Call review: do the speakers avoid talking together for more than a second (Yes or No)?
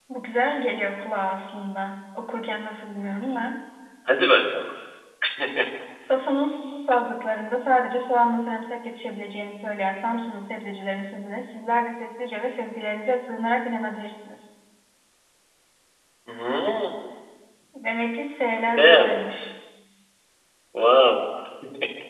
Yes